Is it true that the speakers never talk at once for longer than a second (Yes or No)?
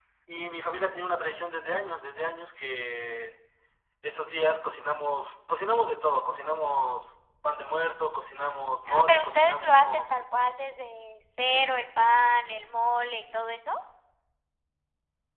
No